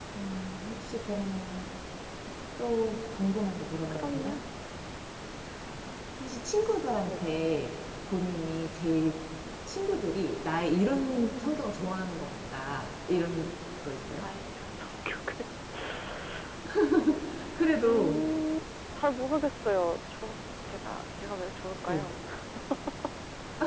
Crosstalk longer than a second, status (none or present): none